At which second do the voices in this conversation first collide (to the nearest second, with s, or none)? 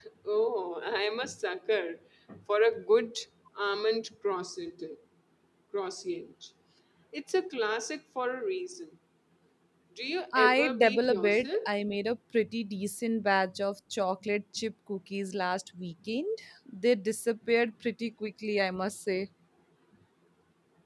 10 s